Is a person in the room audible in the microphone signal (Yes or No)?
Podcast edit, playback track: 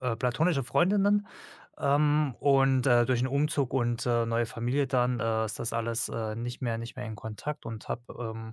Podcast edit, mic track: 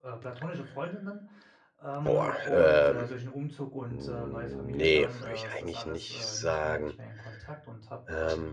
Yes